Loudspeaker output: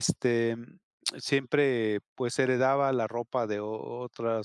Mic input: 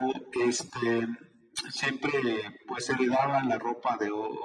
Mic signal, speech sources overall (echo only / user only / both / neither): echo only